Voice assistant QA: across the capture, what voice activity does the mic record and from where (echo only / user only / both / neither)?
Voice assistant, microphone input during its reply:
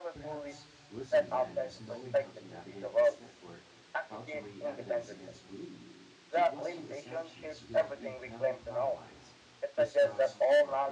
both